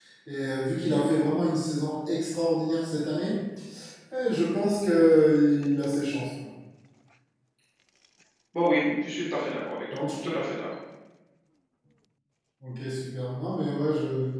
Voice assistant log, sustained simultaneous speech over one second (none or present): none